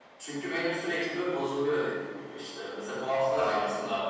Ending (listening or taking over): listening